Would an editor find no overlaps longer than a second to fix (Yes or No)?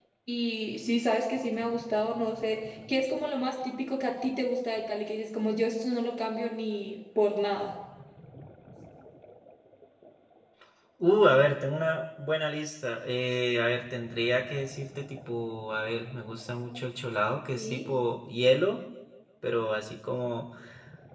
Yes